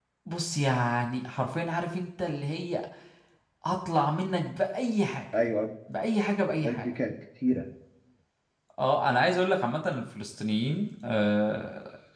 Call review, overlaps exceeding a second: none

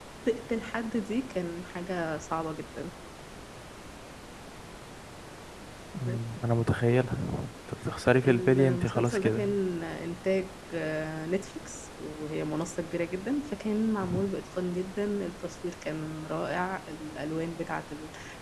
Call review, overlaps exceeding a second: present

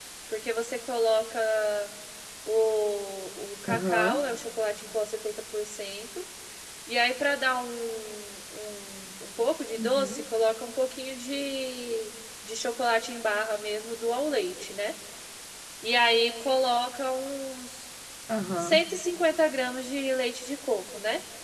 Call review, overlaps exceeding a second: none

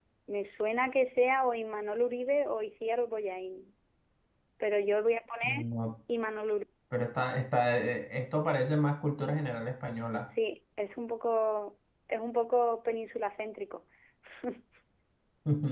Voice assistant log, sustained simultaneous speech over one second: none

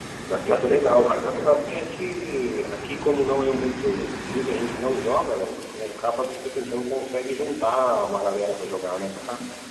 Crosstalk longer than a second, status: present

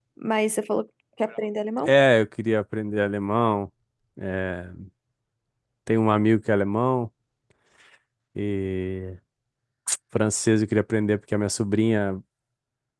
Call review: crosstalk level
none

